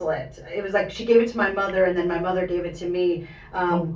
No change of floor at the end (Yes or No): Yes